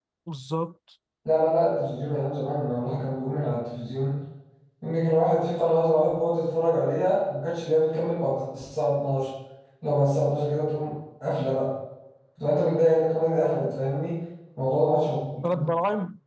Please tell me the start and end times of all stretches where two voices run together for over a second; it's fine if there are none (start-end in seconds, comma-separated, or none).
none